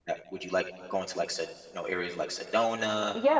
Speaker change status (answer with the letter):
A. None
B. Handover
B